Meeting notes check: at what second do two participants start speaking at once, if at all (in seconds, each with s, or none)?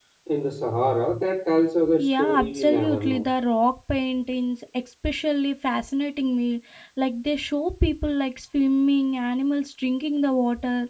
2.0 s